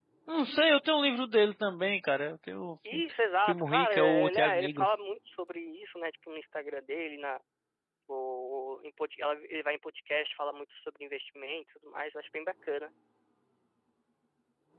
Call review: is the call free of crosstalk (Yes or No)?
No